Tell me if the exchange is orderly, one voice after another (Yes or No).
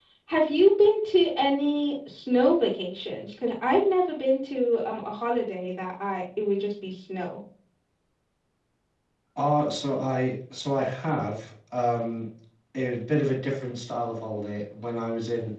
Yes